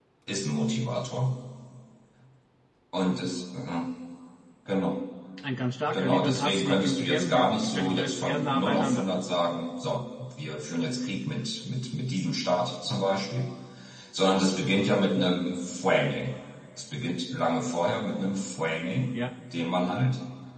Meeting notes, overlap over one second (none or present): present